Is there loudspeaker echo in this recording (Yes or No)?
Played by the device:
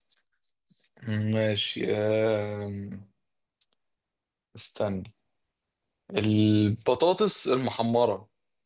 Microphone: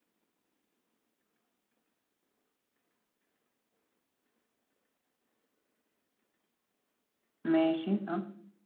No